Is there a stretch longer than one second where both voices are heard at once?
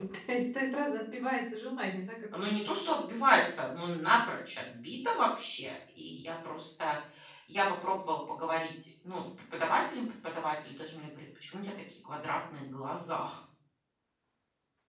No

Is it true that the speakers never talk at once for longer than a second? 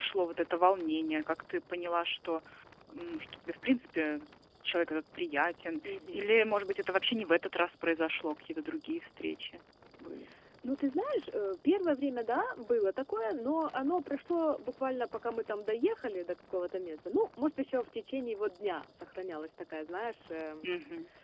Yes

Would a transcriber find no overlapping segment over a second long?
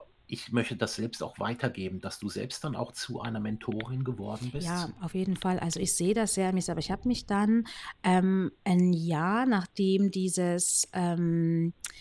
Yes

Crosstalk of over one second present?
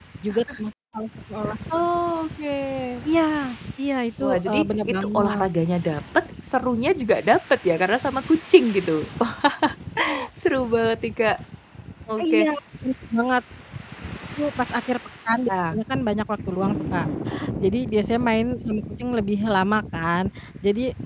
Yes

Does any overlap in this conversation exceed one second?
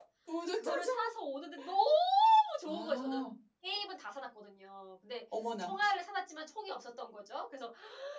No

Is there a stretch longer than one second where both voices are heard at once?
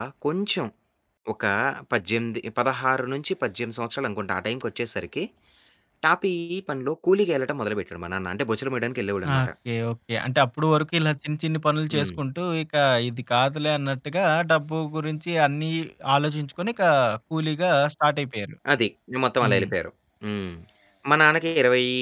No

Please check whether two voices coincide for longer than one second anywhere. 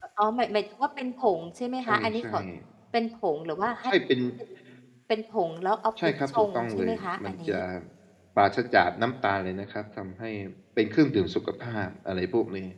Yes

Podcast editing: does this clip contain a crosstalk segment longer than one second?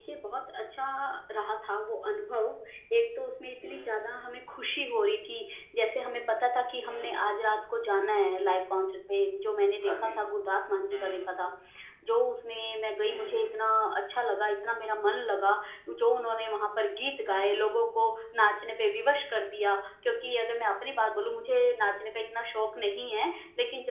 No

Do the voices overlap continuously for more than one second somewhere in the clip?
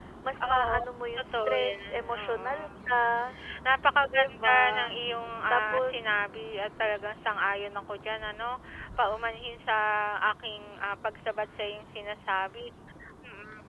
Yes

